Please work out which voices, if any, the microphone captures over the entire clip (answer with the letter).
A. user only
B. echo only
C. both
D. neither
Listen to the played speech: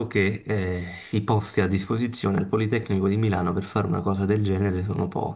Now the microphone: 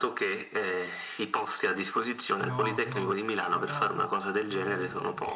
C